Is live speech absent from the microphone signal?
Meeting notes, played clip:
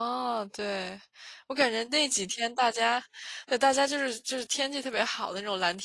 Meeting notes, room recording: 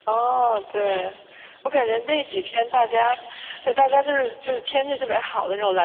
Yes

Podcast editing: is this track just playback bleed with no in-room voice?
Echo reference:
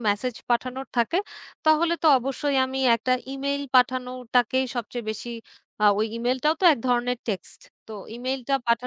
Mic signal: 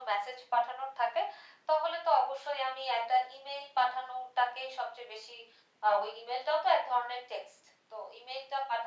Yes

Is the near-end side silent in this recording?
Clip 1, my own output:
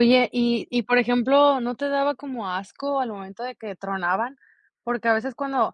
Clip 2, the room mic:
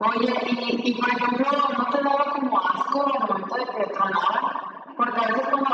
Yes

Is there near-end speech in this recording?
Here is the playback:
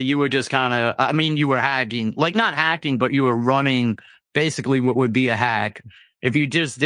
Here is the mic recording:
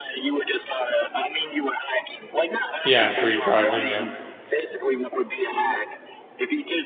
Yes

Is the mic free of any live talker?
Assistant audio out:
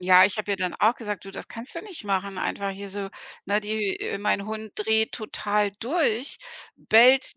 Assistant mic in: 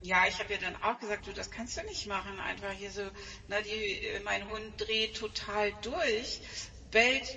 Yes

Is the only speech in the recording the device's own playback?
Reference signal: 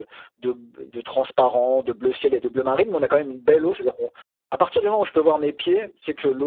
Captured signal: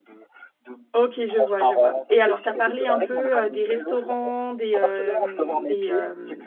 No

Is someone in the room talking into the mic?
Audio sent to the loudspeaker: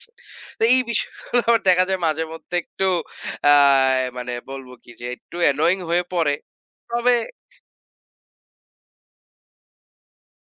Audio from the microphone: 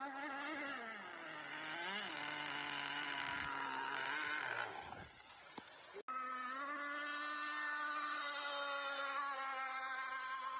No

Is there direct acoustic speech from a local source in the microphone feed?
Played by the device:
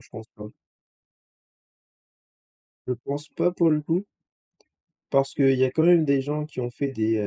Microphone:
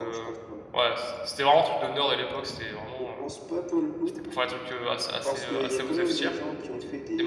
Yes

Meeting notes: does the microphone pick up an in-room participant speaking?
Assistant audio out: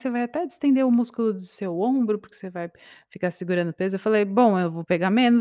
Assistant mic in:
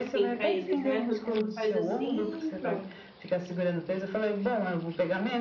Yes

